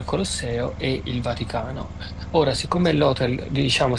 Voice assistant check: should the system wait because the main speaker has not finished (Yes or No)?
Yes